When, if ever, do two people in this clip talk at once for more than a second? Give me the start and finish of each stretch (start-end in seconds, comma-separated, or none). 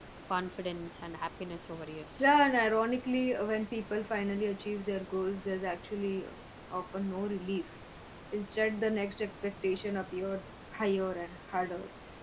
none